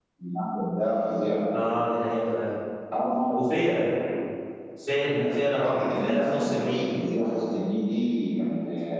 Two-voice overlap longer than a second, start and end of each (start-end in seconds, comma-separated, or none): 5.6-6.8